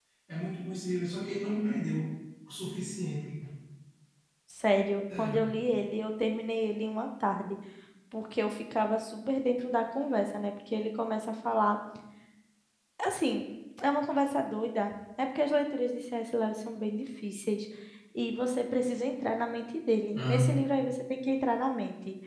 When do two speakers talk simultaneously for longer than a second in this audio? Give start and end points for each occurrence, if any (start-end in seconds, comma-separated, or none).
none